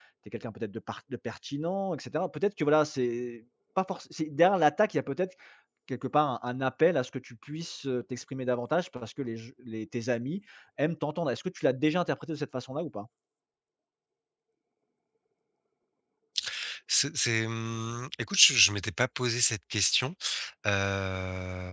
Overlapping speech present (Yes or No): No